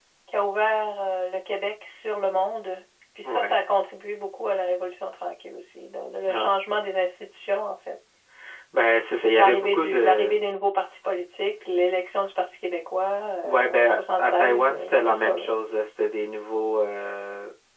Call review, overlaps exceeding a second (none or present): present